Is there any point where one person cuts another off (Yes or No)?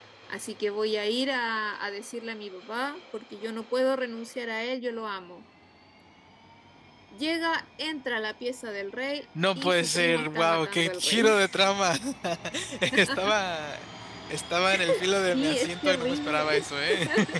Yes